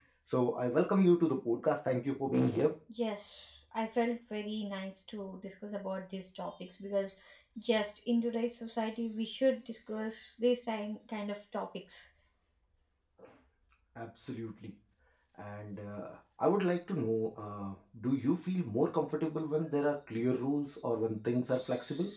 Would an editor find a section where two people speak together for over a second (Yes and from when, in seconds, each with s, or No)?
No